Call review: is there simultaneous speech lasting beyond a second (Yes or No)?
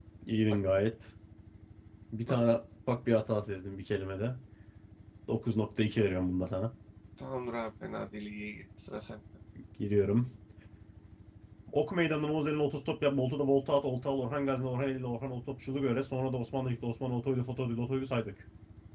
No